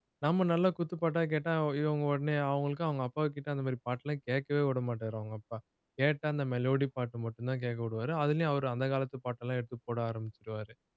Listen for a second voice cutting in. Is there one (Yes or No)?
No